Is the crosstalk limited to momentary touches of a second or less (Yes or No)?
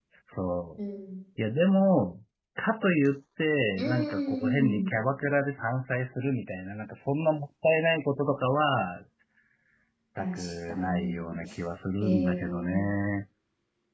No